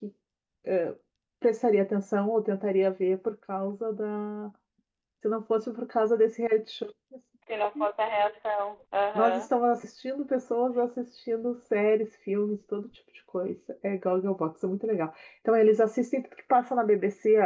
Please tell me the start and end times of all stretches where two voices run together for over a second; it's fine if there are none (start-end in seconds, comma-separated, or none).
none